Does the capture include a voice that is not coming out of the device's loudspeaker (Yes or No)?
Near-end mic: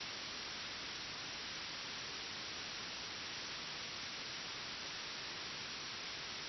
No